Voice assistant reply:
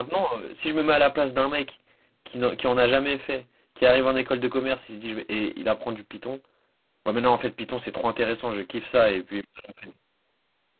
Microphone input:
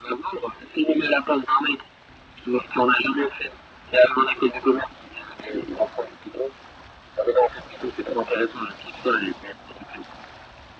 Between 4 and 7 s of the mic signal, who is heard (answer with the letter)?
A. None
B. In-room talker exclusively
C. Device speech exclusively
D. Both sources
C